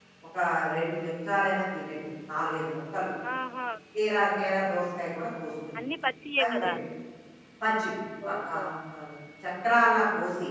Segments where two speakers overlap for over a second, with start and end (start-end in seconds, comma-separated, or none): none